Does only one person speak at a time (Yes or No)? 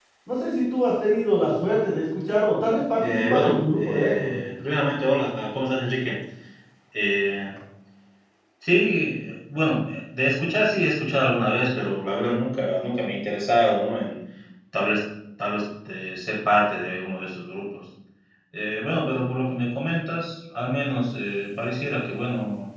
No